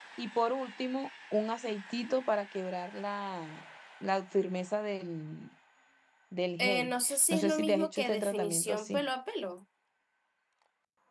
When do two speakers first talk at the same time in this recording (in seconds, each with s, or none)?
6.6 s